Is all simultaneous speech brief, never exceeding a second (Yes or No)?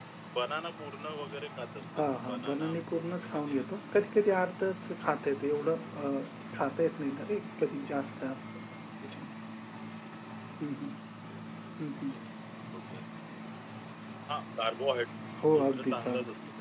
No